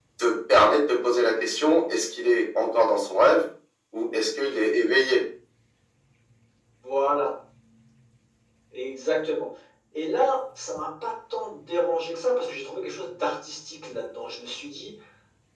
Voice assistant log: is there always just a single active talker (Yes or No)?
Yes